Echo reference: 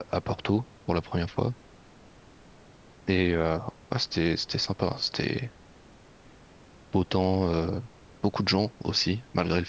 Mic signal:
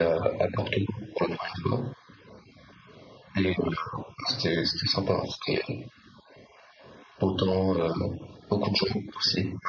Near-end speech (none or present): none